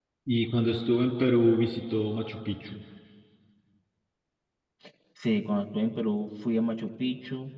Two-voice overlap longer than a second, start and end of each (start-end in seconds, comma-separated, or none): none